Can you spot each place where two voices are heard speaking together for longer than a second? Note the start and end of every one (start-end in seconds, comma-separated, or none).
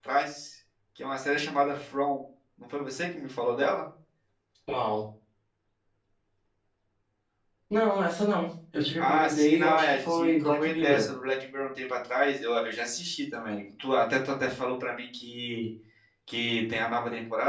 9.0-11.1